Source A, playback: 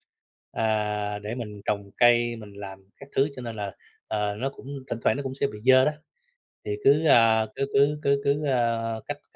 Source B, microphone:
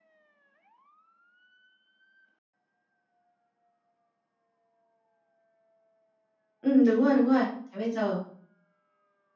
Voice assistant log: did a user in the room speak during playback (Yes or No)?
Yes